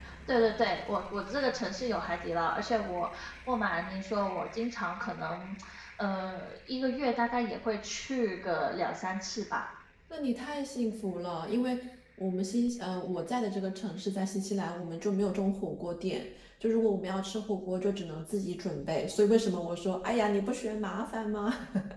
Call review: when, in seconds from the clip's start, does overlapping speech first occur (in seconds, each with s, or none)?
none